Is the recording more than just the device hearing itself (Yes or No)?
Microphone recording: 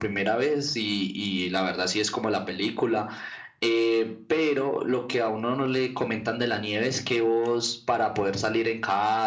No